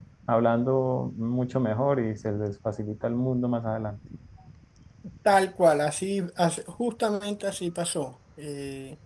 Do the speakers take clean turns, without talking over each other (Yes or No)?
Yes